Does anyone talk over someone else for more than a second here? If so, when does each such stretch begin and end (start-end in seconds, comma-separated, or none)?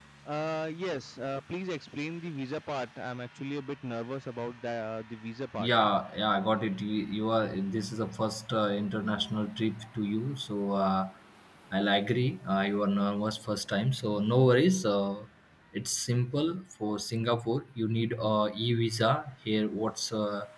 none